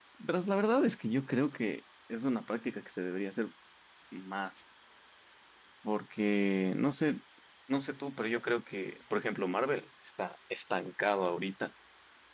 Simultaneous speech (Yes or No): No